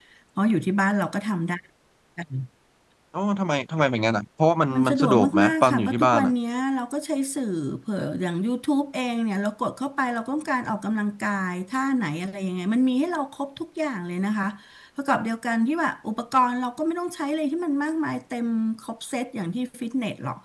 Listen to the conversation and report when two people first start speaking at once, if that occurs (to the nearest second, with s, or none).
5 s